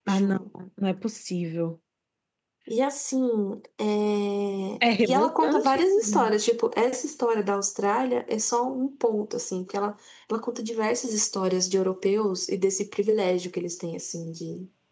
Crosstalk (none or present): present